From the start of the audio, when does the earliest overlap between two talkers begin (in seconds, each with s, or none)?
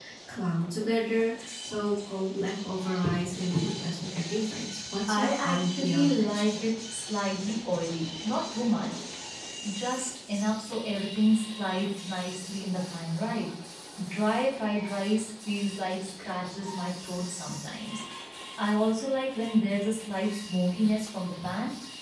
5.1 s